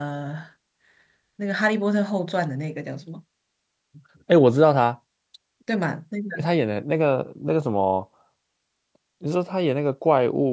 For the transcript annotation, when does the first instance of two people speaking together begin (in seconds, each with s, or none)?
none